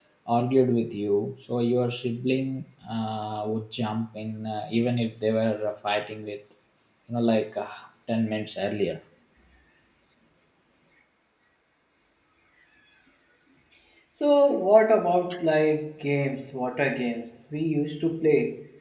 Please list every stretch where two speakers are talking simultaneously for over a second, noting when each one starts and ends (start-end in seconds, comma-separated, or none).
none